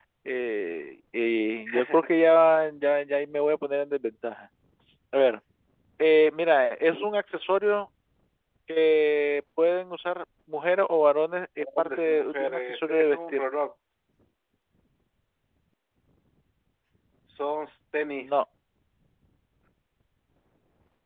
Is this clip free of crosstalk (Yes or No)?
No